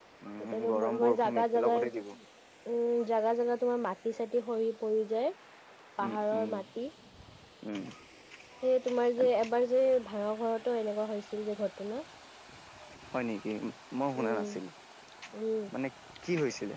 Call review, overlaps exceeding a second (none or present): present